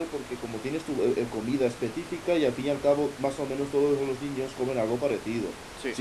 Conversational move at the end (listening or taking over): listening